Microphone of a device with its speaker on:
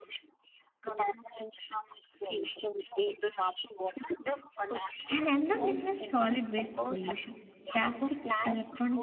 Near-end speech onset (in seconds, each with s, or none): 5.1 s